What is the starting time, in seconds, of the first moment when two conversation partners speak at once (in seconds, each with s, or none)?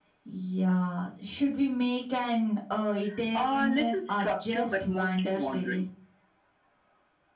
3.4 s